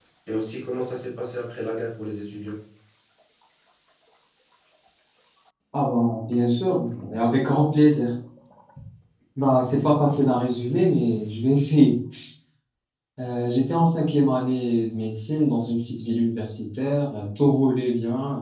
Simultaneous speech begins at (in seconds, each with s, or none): none